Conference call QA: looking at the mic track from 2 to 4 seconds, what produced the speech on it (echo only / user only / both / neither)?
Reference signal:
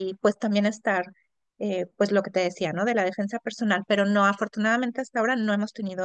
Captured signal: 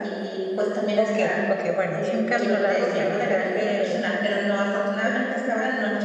both